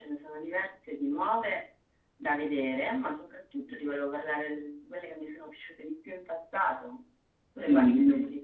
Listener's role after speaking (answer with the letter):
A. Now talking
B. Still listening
A